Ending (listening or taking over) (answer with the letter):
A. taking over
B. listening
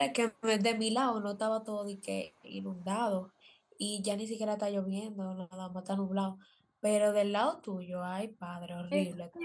A